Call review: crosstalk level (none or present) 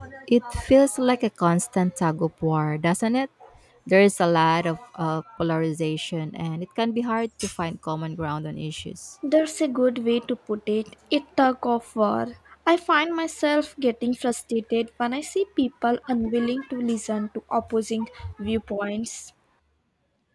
none